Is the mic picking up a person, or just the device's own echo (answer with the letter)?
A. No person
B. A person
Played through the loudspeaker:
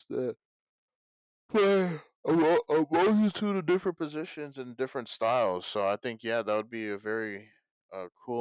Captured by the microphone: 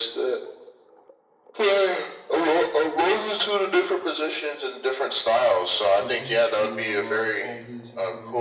B